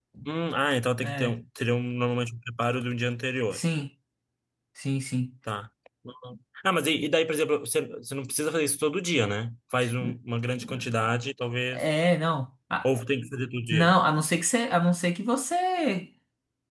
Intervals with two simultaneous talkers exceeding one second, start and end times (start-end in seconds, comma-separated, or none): none